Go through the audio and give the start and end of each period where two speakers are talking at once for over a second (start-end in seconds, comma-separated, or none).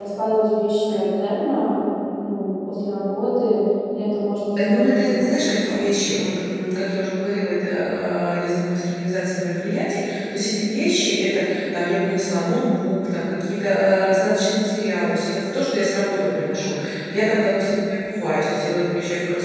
4.6-5.9